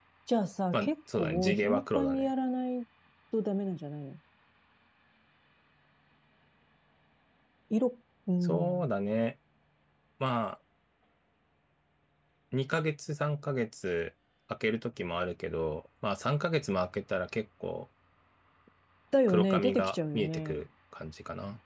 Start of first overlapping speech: 1 s

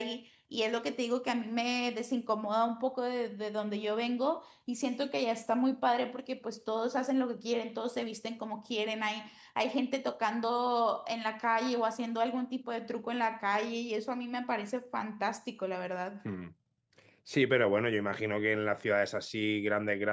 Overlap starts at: none

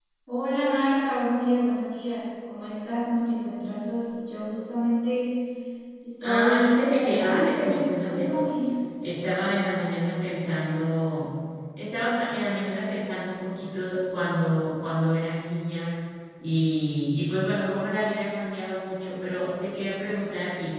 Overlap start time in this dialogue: 6 s

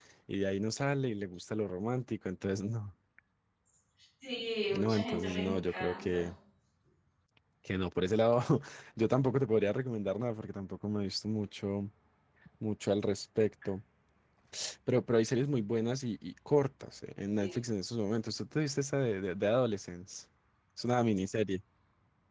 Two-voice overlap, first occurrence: 5 s

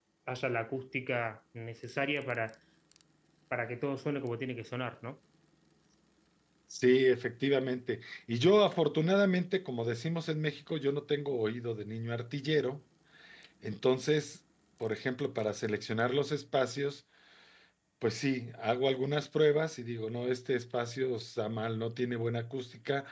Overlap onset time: none

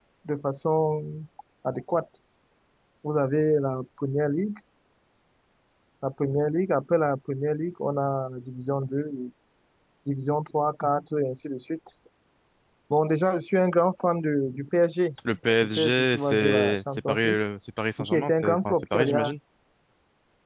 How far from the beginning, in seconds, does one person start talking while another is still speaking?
16 s

